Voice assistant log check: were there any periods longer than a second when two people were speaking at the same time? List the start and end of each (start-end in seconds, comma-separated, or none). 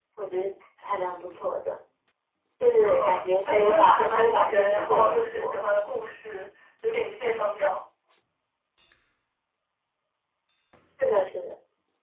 2.8-5.6